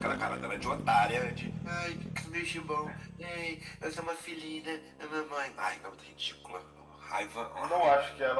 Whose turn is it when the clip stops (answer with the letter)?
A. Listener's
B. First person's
A